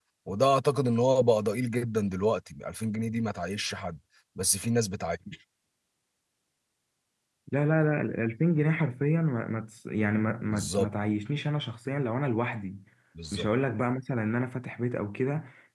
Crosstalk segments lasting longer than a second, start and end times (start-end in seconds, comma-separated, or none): none